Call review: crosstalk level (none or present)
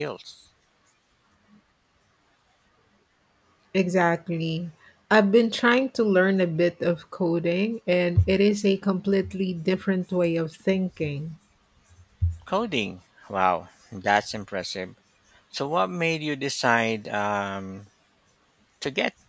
none